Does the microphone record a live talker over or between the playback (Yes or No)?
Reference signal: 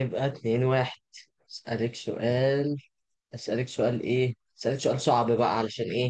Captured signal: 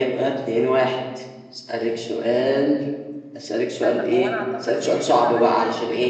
Yes